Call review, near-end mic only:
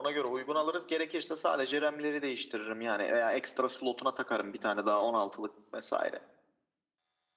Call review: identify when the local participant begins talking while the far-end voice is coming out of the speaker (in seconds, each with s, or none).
none